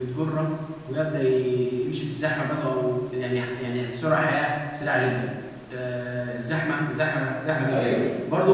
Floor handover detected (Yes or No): No